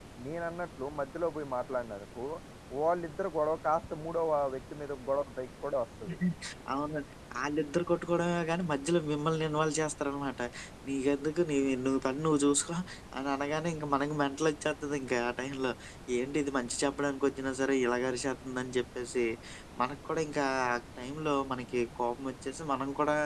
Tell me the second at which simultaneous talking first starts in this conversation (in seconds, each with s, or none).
none